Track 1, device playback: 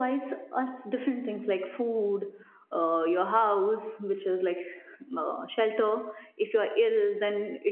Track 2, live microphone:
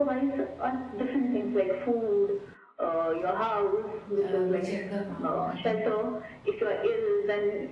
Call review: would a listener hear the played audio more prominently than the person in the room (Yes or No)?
Yes